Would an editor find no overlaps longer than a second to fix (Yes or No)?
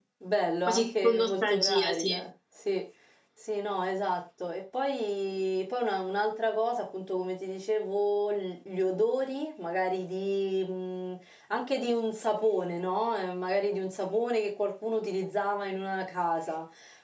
No